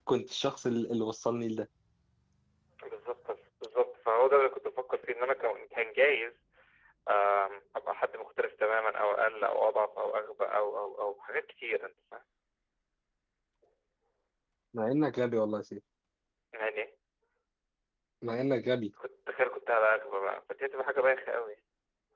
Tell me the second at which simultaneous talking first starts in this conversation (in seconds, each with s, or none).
none